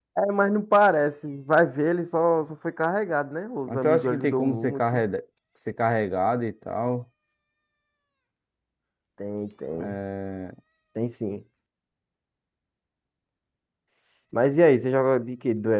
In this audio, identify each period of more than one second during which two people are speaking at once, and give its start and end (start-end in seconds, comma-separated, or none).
3.7-5.0